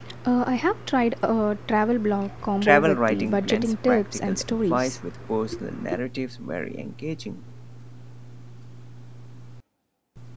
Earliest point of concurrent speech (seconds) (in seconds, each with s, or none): 2.5 s